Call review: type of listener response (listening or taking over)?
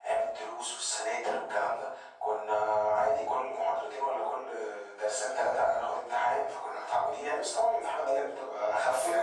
taking over